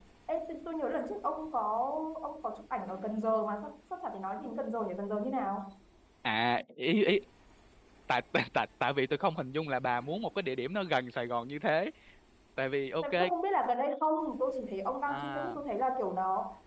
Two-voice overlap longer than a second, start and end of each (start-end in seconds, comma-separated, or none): none